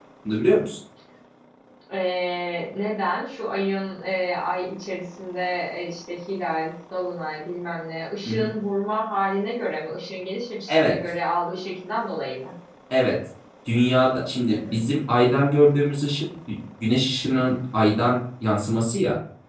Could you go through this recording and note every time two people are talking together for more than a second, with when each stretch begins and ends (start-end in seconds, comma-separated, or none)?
none